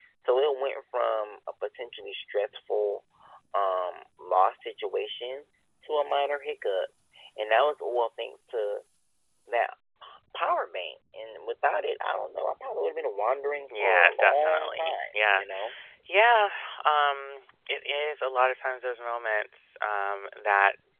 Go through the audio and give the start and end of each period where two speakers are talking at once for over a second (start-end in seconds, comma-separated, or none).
13.7-15.4